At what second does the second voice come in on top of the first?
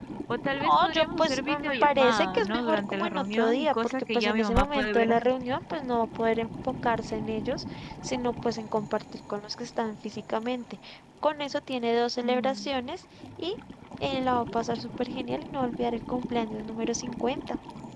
1 s

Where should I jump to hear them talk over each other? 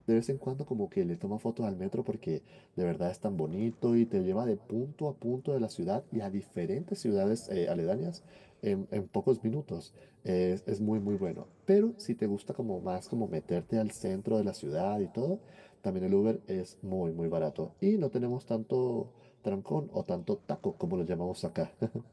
none

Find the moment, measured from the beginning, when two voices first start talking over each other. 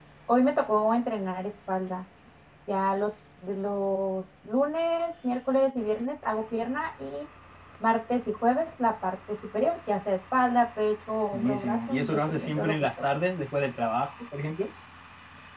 11 s

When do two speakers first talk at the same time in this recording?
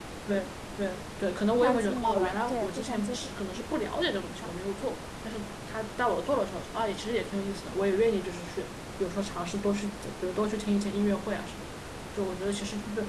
2 s

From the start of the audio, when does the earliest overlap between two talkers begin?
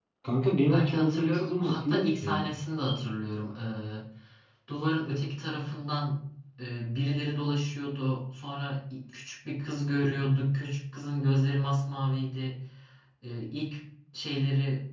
1 s

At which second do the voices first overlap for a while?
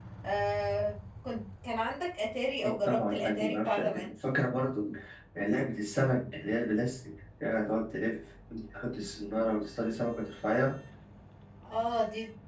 3 s

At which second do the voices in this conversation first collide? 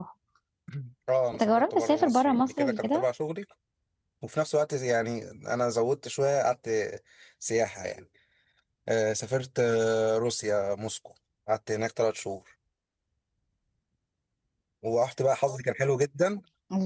1 s

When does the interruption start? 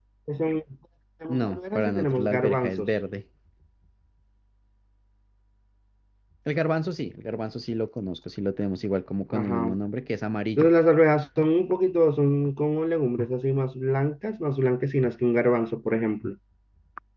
1 s

